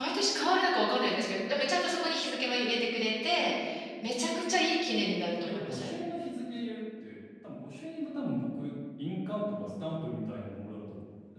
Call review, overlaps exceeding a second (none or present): none